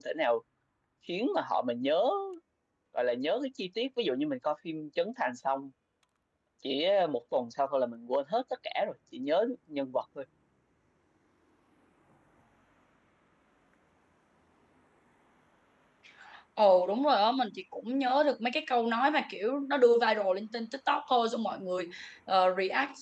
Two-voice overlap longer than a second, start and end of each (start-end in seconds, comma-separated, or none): none